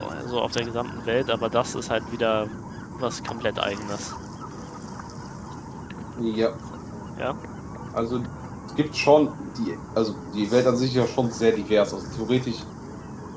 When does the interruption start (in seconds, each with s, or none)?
none